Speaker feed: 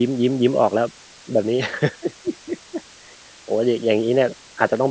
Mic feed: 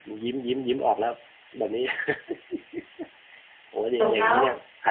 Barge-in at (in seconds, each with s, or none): 4.0 s